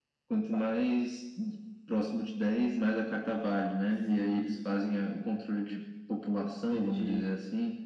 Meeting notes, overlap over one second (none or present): present